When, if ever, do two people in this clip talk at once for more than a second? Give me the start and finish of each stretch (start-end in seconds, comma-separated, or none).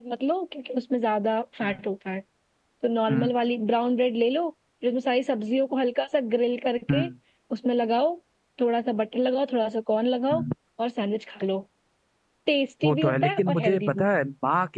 12.8-14.1